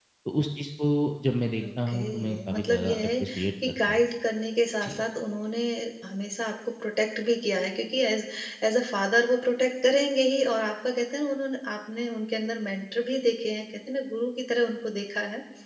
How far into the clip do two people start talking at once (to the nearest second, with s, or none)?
2 s